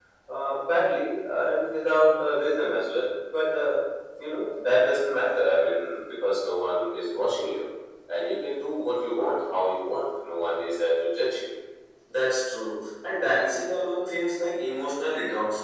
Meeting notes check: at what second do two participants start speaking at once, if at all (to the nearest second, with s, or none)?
none